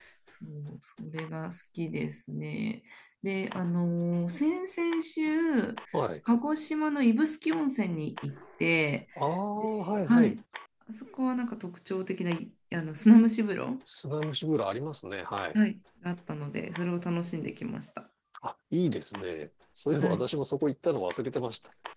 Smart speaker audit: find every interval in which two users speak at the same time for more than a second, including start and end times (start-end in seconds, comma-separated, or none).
none